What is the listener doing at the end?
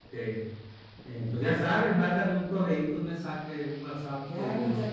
taking over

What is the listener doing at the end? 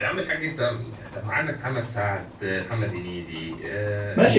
taking over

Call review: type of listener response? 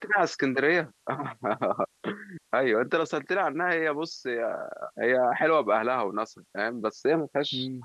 listening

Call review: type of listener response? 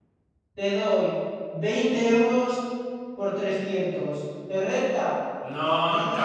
taking over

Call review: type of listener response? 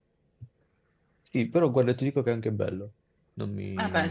taking over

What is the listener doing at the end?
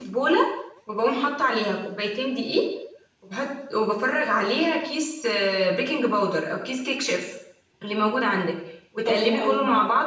listening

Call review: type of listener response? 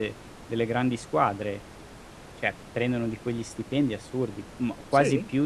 listening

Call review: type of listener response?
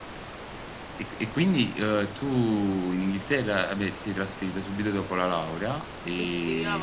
taking over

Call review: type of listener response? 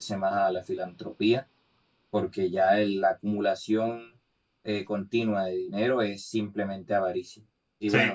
listening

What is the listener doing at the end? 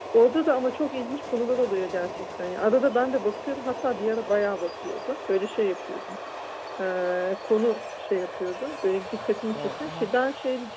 listening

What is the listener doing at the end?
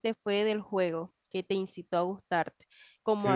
listening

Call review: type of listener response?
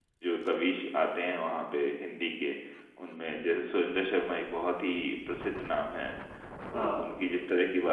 listening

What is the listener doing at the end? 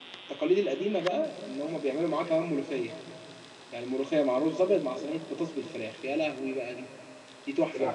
taking over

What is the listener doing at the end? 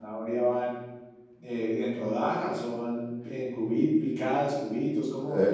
taking over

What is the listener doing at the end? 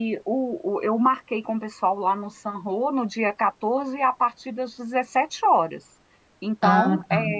listening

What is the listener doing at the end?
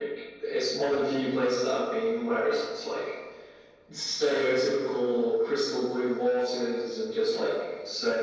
listening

